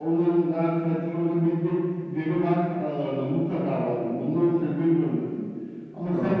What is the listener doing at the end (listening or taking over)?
listening